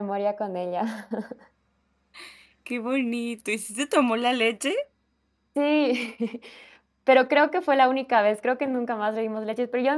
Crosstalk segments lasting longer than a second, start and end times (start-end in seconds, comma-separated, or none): none